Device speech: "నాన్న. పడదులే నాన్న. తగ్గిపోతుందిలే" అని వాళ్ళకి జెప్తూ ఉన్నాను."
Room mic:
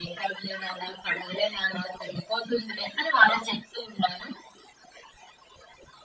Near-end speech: none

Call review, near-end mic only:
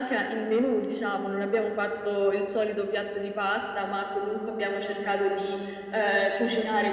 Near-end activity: none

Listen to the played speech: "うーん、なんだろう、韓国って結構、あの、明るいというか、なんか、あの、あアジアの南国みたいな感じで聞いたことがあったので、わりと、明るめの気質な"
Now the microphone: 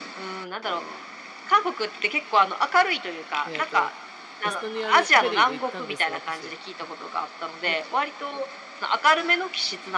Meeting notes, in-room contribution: present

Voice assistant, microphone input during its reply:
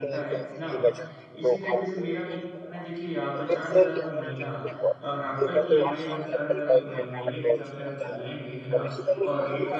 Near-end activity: present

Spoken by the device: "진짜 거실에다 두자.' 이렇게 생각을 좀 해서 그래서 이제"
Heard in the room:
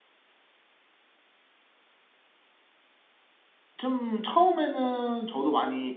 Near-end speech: present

